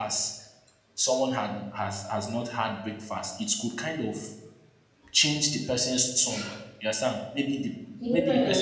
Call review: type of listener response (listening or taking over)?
listening